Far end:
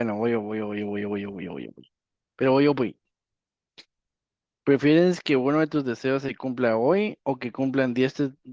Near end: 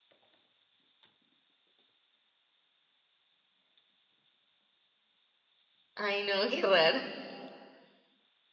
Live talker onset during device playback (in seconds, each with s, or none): 6.0 s